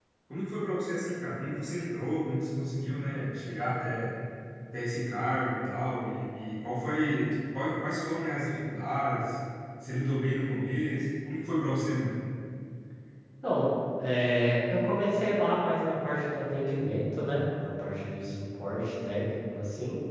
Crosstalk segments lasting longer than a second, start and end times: none

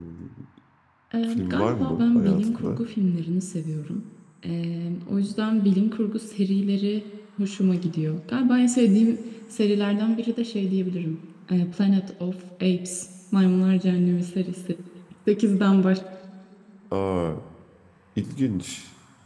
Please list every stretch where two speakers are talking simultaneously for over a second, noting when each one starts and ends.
1.3-2.8

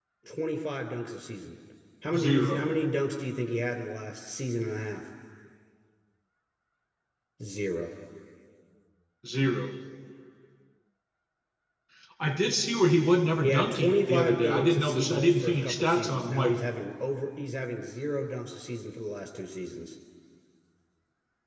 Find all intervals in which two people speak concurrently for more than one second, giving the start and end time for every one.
13.4-16.6

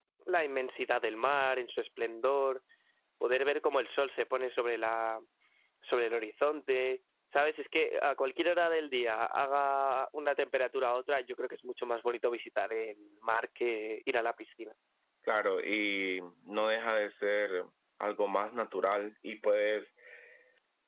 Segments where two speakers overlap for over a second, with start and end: none

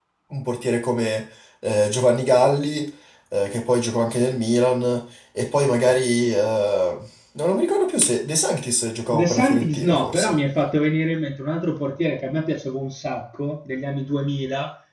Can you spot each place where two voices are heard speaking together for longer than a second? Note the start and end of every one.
9.1-10.3

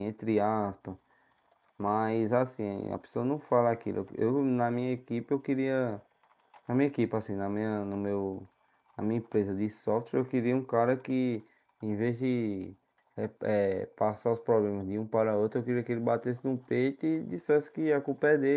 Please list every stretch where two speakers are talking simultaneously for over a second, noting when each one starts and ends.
none

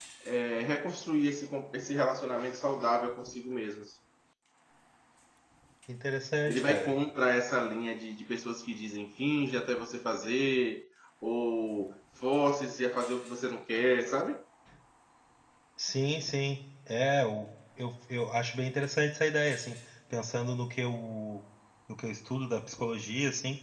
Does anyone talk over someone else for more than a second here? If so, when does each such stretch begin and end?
none

